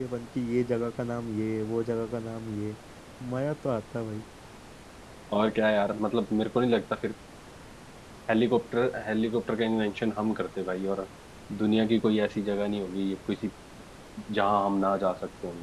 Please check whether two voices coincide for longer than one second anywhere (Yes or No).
No